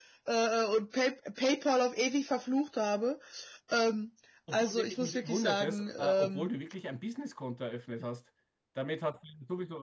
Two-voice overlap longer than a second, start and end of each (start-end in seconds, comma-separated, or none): 4.5-6.5